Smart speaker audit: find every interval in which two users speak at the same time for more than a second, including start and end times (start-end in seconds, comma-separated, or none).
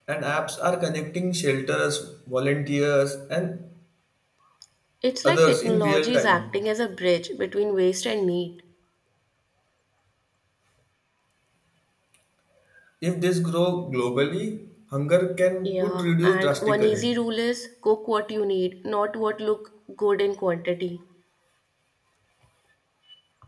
5.2-6.6, 15.6-17.1